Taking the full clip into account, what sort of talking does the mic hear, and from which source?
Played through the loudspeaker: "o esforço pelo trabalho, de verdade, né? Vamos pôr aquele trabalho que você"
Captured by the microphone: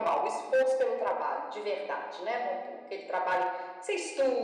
echo only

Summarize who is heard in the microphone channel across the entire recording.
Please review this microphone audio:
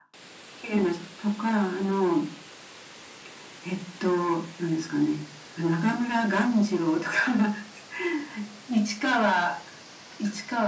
echo only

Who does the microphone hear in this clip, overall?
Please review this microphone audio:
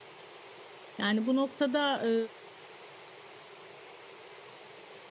user only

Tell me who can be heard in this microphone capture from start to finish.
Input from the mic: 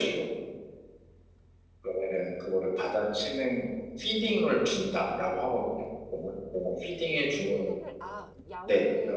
both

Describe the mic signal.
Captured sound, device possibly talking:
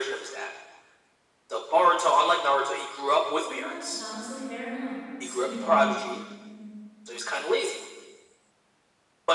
both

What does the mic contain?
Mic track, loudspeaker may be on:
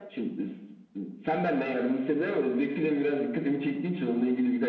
echo only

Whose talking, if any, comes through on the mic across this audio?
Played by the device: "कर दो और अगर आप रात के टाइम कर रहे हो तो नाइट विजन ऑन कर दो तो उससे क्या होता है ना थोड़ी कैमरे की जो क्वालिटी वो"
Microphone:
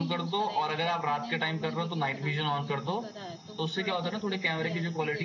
both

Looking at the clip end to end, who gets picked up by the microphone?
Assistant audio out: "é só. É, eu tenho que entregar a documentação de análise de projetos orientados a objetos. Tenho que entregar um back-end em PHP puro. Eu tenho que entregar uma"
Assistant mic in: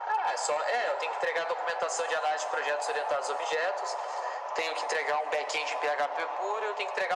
echo only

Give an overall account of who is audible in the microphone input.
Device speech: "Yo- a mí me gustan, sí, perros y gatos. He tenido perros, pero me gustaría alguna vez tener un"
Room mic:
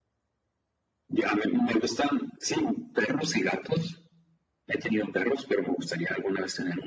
echo only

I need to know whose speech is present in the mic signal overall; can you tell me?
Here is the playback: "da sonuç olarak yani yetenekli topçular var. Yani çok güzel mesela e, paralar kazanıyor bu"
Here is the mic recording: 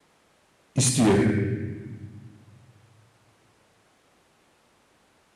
user only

